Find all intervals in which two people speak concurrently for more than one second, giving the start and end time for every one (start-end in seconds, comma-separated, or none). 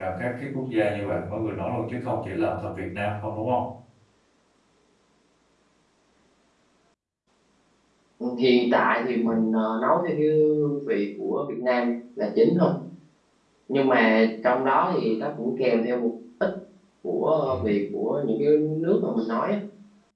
none